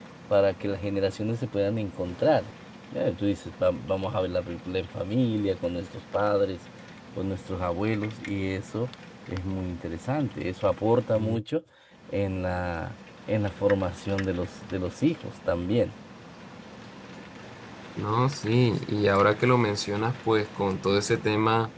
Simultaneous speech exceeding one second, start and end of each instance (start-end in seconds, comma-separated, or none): none